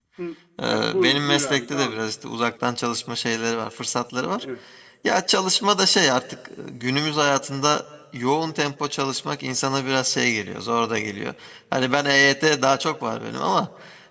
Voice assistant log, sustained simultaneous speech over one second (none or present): present